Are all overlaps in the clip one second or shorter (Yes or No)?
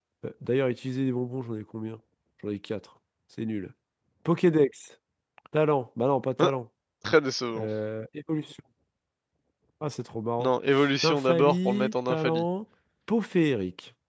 No